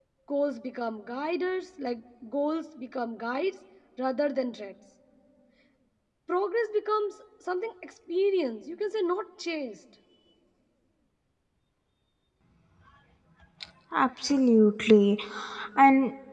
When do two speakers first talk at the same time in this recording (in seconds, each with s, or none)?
none